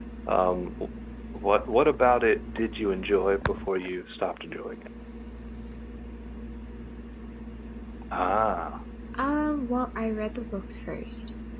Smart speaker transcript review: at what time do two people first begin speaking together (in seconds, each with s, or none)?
none